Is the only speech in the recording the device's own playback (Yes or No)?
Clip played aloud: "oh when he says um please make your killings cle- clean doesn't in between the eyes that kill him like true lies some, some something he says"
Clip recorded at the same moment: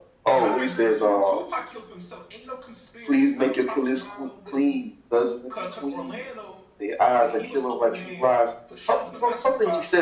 No